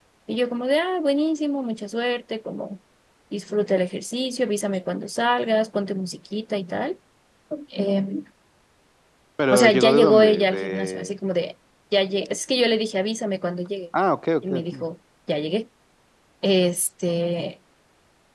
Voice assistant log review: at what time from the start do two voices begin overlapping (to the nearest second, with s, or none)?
10 s